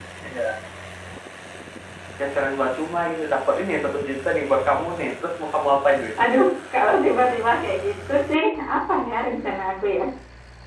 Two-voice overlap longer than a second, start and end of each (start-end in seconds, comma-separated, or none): none